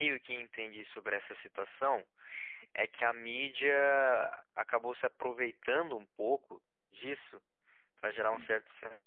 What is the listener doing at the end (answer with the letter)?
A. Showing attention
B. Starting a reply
A